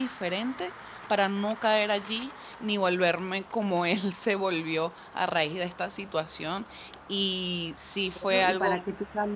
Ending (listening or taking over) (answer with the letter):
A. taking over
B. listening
A